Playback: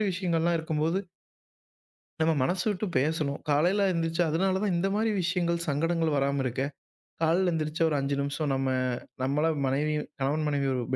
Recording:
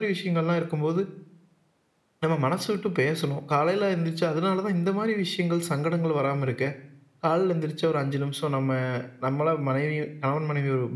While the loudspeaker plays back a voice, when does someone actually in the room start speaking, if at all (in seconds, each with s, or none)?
none